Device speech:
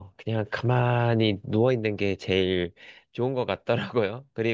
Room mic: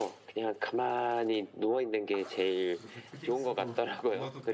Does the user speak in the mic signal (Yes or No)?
Yes